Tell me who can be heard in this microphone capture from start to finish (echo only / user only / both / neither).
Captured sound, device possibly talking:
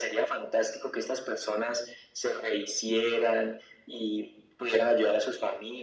echo only